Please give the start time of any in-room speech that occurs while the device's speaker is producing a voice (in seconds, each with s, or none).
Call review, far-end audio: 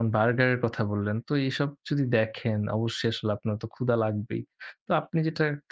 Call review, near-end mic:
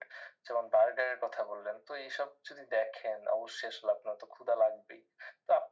none